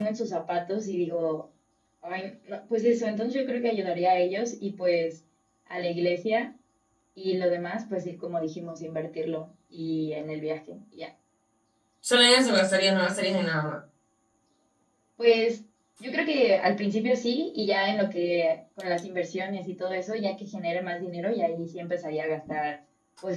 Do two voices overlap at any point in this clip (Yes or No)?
No